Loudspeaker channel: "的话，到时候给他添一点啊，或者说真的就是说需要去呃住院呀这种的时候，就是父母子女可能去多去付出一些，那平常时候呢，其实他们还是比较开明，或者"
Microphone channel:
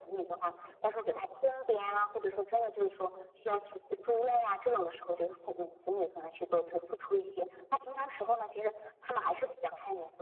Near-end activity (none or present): none